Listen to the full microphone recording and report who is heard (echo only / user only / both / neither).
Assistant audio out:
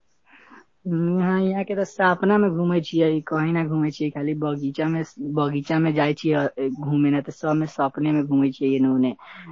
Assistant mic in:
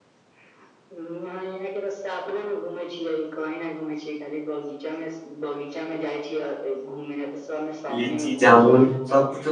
both